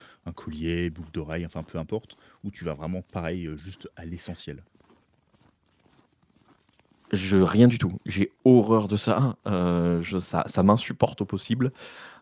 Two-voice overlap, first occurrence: none

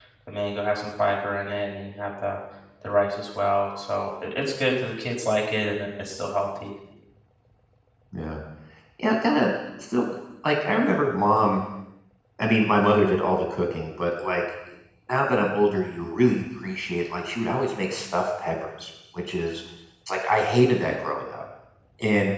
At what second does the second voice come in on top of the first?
none

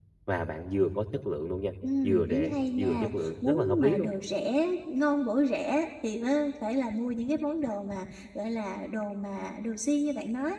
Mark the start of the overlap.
1.8 s

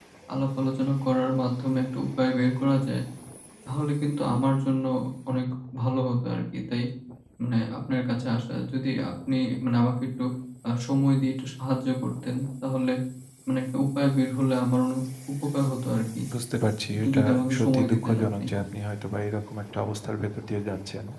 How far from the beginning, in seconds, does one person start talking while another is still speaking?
16.9 s

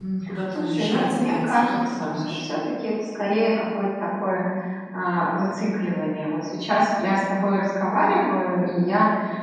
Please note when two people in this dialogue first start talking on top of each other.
0.6 s

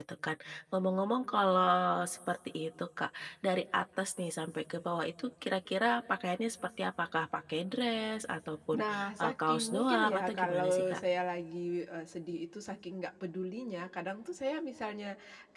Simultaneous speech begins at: 8.7 s

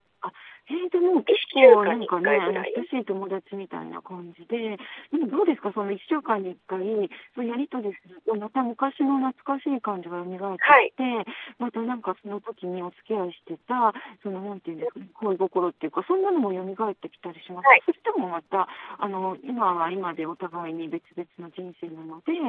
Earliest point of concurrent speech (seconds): 1.3 s

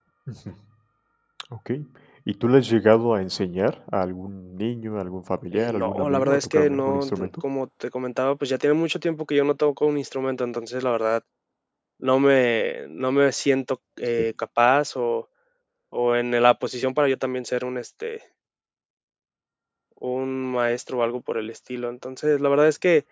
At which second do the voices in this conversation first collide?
5.5 s

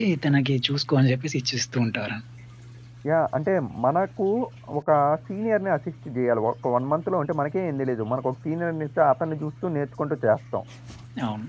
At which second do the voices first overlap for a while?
none

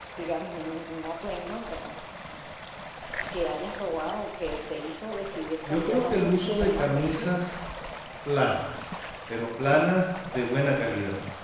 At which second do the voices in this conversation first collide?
5.6 s

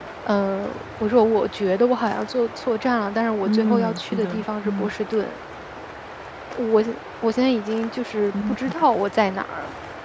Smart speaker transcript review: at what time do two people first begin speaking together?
3.4 s

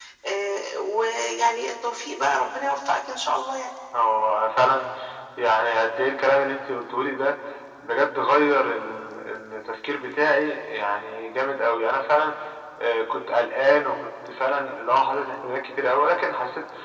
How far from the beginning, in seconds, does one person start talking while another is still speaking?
none

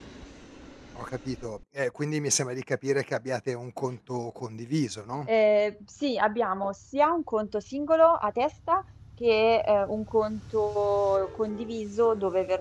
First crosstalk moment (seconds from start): none

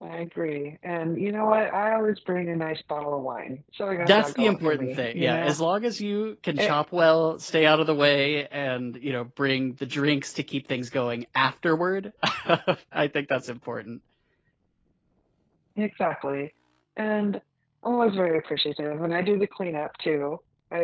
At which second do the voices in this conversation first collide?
4.0 s

